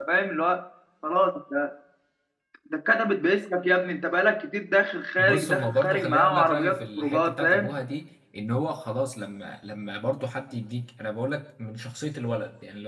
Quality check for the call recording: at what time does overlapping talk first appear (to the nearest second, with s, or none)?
5 s